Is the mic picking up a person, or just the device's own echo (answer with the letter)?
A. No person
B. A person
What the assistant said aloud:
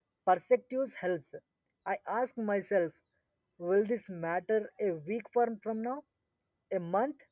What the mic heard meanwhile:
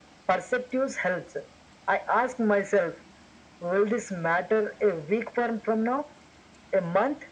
A